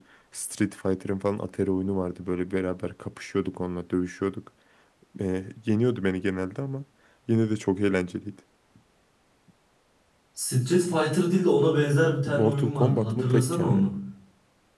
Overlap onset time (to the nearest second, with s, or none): 12 s